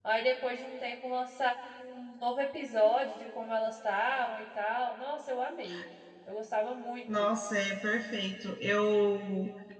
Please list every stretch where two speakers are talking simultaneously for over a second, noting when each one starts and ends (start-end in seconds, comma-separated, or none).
none